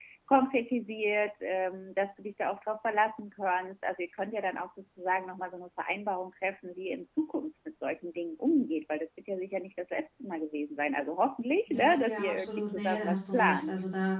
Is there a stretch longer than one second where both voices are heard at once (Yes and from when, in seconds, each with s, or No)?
Yes, from 11.7 s